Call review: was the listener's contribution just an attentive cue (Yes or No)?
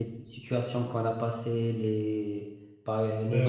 No